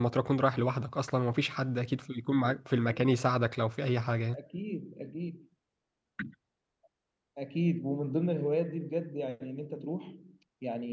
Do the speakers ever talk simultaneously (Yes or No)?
No